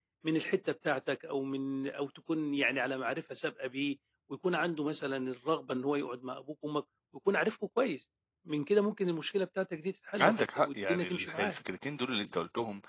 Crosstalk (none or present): present